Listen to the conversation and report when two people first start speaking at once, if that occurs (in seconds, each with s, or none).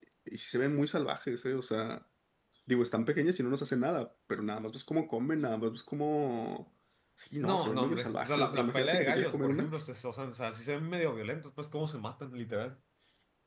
7.4 s